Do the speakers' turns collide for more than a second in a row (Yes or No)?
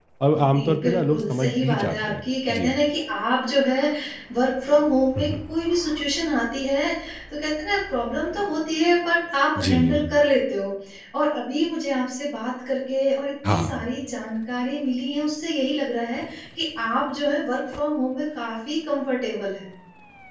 Yes